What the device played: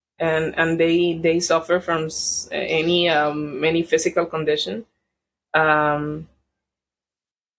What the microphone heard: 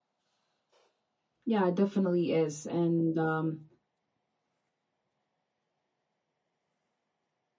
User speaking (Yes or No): Yes